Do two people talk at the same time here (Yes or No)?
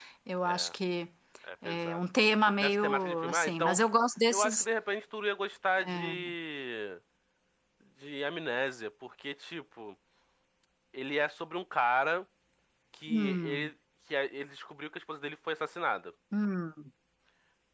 Yes